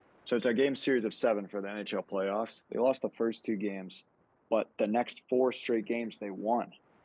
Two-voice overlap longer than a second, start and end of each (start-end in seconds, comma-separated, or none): none